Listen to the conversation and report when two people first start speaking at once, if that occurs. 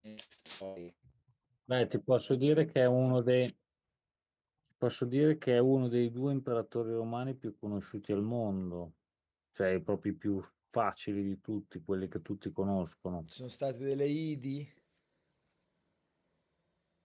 none

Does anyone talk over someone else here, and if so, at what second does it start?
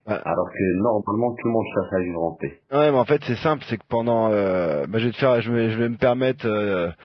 none

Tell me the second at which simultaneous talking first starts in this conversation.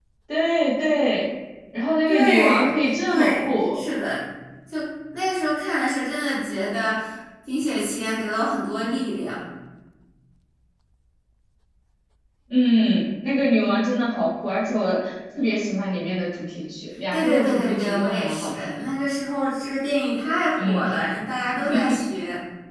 2.1 s

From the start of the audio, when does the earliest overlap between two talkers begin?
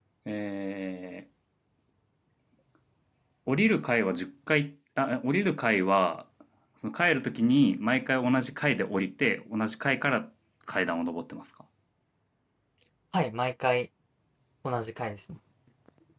none

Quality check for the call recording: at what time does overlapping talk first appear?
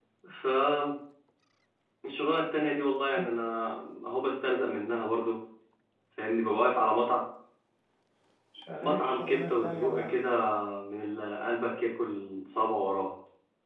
8.8 s

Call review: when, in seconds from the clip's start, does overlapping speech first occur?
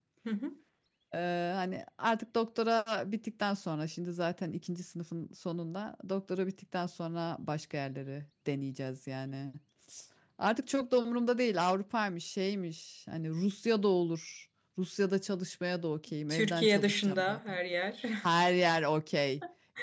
16.3 s

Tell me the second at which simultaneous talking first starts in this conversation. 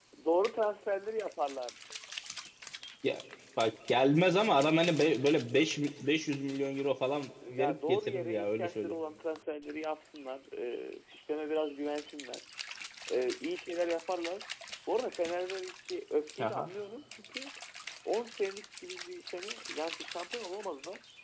7.5 s

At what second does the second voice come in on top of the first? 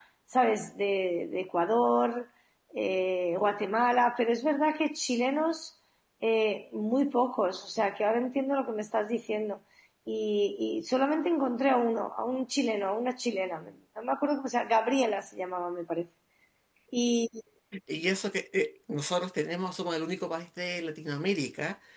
none

